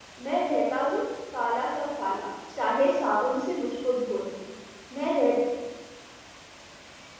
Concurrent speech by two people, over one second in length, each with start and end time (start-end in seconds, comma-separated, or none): none